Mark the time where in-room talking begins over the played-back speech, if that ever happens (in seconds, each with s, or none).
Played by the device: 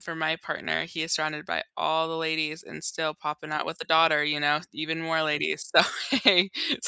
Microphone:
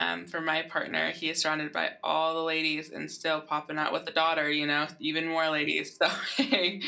none